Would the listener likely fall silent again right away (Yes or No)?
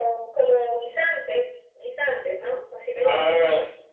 No